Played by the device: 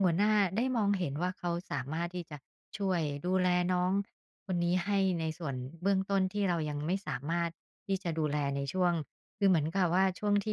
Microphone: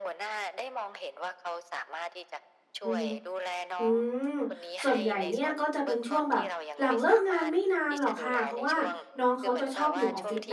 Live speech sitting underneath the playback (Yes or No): No